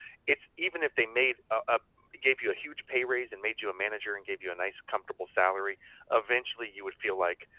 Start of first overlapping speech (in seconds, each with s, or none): none